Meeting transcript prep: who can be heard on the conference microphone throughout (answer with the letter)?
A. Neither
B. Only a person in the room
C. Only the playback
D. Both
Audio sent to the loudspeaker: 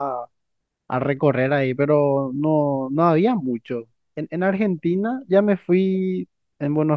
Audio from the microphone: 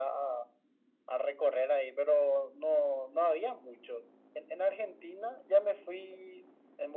C